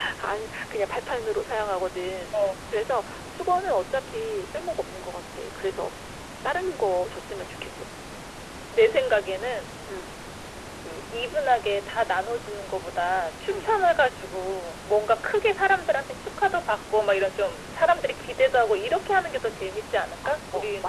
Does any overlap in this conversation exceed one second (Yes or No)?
No